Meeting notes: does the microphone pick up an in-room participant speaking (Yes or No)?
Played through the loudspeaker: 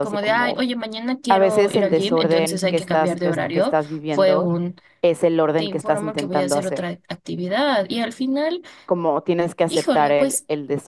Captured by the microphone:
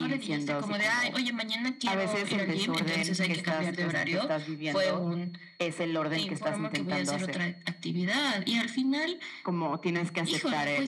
No